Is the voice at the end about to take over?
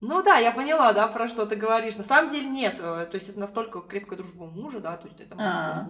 No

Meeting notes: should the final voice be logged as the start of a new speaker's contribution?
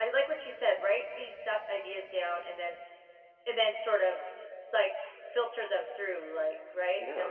Yes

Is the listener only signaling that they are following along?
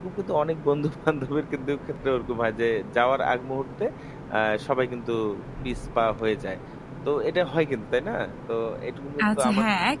No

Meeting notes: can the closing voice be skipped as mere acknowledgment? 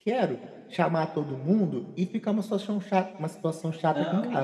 No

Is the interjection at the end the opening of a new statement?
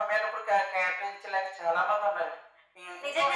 Yes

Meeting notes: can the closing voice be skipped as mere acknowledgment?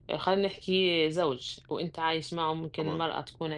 Yes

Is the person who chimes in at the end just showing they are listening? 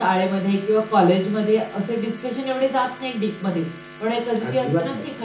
Yes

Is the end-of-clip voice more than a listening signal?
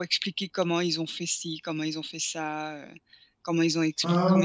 No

